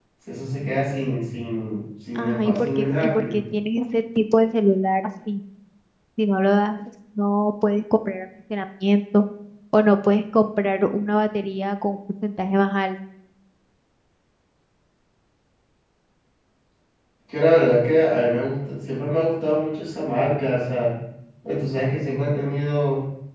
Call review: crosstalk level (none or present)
present